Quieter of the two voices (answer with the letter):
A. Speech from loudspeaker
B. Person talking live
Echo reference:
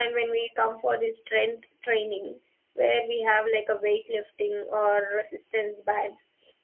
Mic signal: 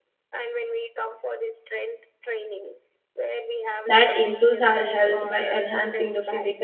A